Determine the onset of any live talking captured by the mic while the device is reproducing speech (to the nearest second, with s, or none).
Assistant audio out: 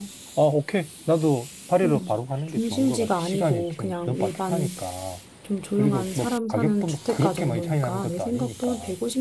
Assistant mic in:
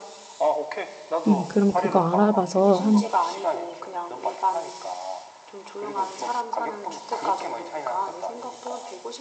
1 s